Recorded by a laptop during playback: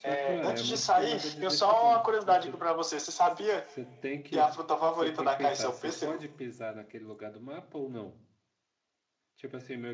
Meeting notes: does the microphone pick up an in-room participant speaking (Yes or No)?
Yes